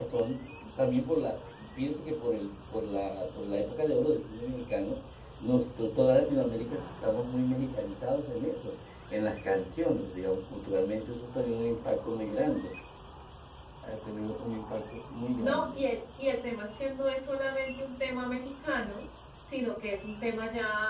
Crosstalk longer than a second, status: none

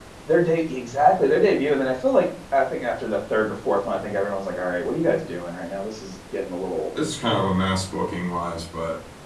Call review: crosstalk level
none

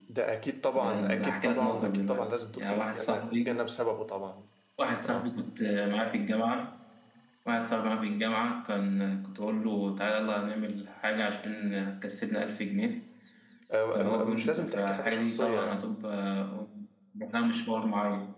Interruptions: present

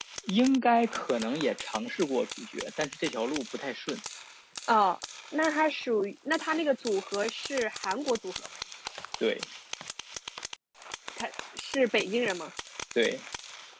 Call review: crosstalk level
none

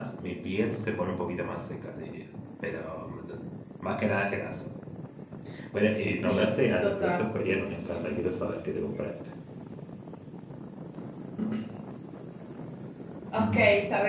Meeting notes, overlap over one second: present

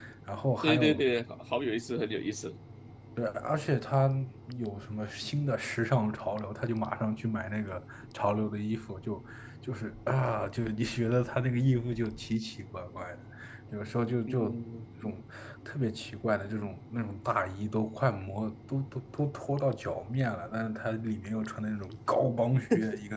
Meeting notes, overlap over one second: none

